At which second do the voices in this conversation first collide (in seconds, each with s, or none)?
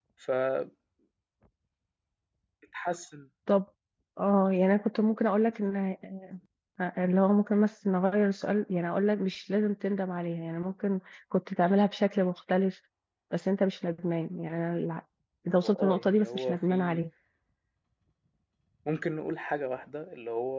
15.6 s